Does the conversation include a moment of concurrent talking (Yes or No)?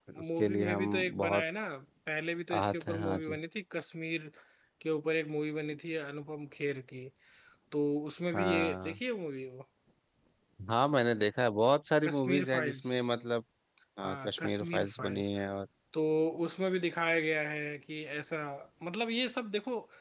Yes